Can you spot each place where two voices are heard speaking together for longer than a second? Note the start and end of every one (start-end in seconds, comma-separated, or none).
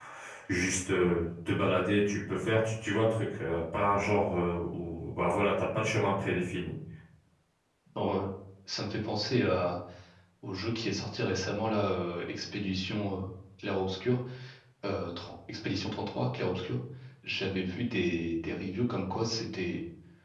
none